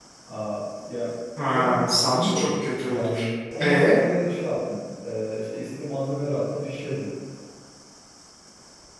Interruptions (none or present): present